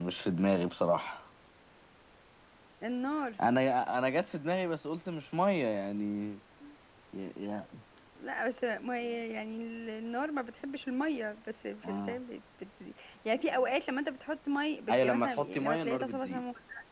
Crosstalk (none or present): present